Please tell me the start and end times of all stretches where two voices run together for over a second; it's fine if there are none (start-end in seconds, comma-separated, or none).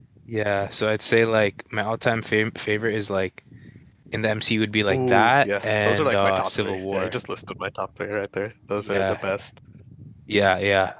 4.9-7.1